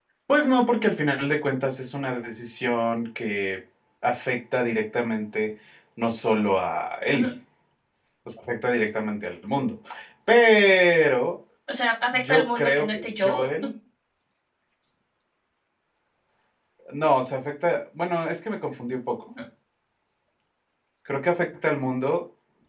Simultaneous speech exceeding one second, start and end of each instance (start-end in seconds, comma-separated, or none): 12.1-13.4